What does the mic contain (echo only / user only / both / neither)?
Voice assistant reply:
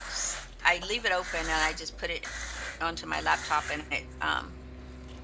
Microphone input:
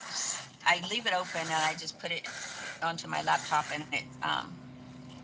echo only